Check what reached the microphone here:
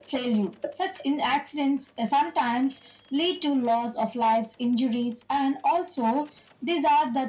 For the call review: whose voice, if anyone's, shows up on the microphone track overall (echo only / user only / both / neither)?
echo only